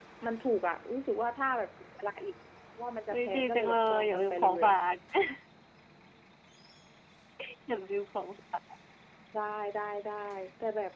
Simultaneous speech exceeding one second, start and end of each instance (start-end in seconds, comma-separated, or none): 3.1-4.7